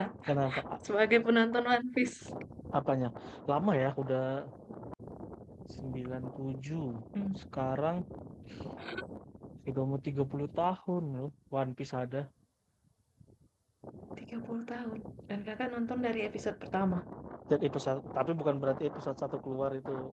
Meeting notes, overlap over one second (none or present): none